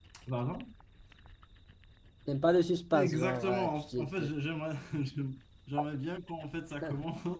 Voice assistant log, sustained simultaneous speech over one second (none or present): present